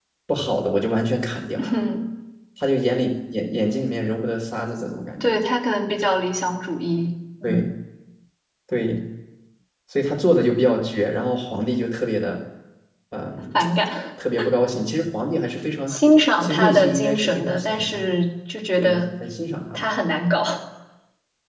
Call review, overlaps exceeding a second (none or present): present